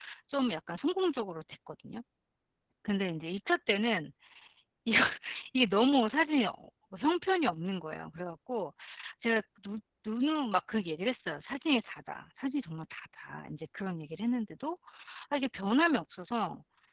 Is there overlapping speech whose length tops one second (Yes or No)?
No